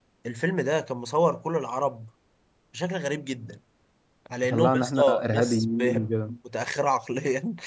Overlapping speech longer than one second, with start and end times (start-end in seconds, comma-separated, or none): 4.5-6.1